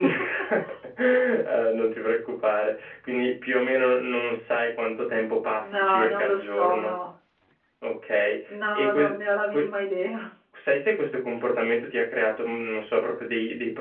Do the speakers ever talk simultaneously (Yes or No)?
Yes